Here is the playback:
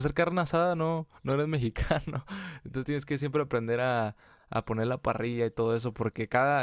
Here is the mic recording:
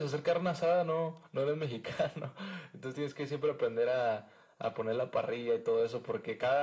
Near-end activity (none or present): none